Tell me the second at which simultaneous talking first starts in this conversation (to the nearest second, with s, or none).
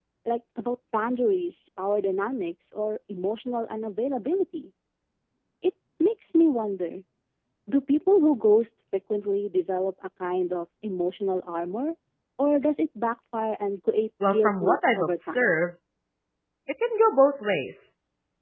14 s